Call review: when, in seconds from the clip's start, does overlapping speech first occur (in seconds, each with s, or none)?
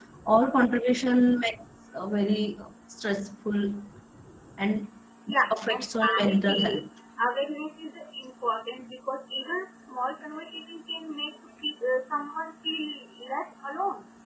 5.4 s